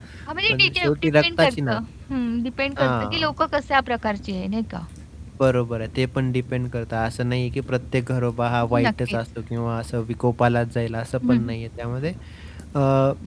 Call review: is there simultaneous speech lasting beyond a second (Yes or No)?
Yes